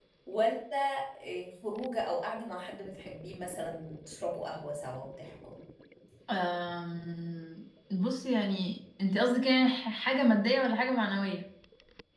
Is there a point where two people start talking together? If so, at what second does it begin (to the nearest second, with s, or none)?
none